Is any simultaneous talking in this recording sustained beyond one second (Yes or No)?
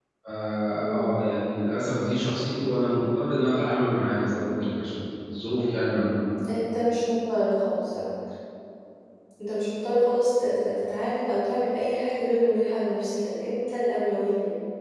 No